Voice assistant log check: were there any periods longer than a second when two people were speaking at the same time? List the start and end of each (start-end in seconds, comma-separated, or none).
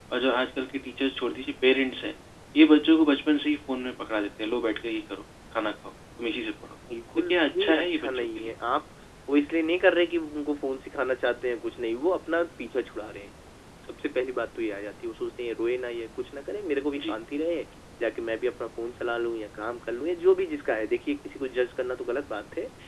7.3-8.5